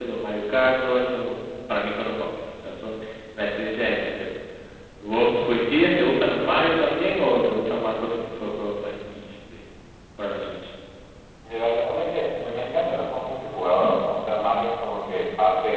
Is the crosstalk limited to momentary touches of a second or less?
Yes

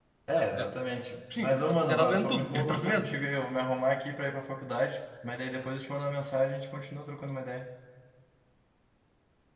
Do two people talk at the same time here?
Yes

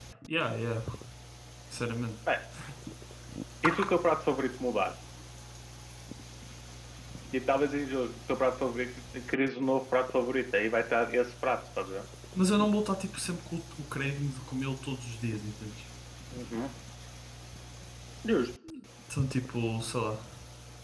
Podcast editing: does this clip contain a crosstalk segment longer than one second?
No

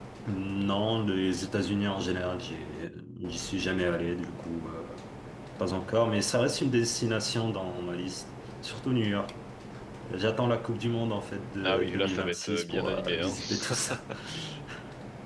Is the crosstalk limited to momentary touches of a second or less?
No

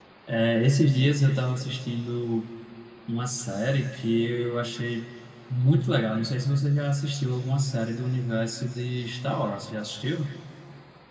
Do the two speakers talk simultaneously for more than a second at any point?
No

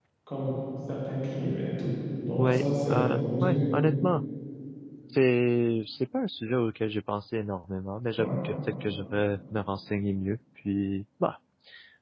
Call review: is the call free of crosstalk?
No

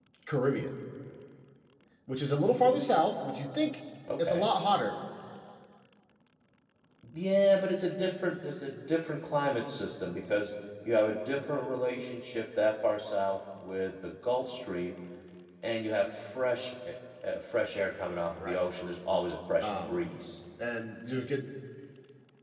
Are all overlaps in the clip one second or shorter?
Yes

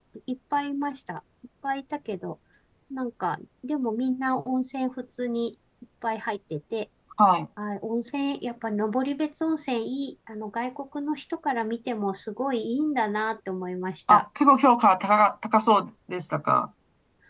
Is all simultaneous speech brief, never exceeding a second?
Yes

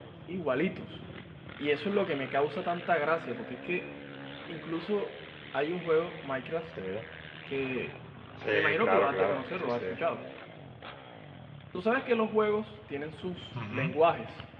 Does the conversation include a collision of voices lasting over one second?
Yes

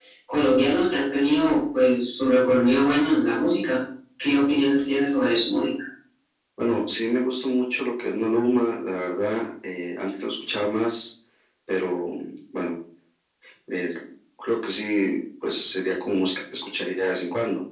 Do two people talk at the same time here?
No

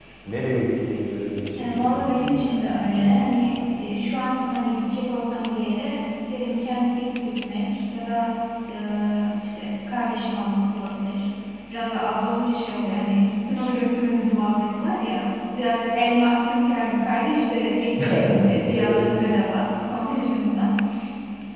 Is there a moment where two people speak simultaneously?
Yes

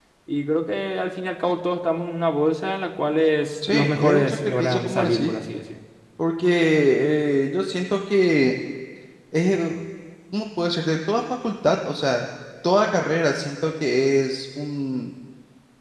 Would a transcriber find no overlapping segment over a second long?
No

